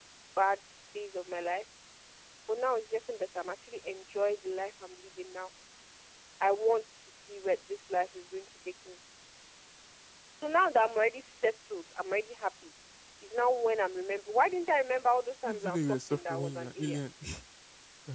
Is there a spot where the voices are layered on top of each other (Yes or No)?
Yes